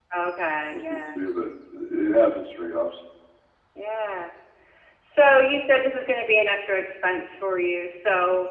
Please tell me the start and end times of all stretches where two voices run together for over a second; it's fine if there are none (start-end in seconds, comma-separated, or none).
none